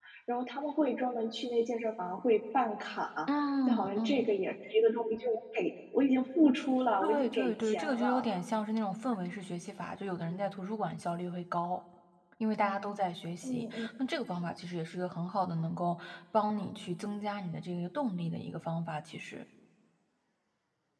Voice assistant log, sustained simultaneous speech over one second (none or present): present